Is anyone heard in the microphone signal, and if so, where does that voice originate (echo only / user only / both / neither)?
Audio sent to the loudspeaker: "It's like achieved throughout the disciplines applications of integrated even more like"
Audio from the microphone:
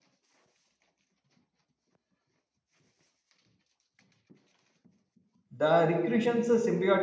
user only